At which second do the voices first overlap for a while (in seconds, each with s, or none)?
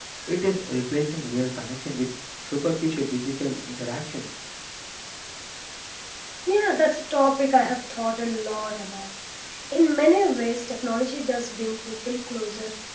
none